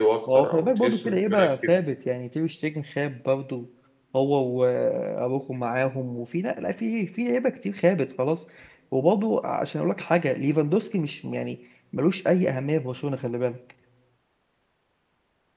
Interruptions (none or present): present